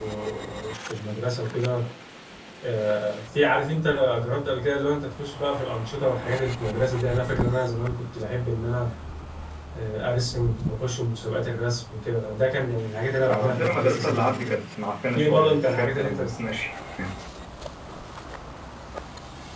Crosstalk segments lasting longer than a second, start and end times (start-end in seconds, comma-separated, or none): 13.3-14.6, 15.2-16.4